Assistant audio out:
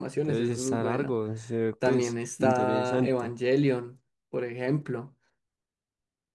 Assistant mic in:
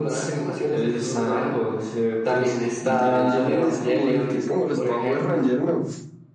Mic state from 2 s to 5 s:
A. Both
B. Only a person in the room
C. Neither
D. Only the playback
A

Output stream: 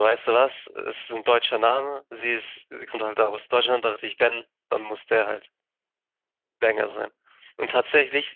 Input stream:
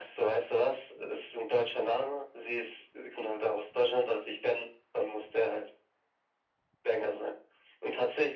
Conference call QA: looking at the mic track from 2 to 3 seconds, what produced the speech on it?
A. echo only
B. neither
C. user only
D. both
A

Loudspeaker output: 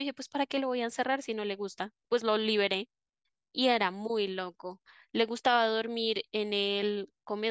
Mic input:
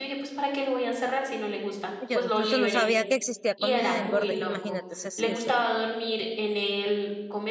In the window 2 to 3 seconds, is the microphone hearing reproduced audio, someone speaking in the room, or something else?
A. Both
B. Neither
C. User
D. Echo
A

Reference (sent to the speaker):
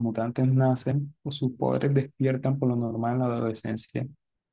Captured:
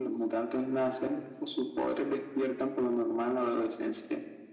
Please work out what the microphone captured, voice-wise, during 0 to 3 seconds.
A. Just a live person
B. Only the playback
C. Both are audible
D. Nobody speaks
B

